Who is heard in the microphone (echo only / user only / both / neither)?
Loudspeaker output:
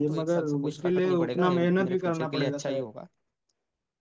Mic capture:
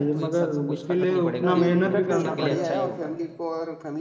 both